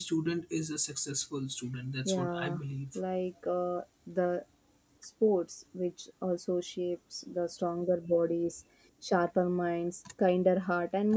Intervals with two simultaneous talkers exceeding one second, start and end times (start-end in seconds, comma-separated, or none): none